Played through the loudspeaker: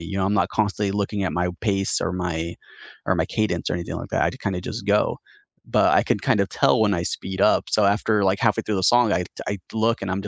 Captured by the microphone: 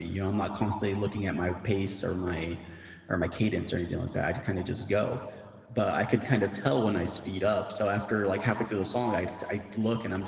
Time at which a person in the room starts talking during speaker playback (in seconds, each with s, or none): none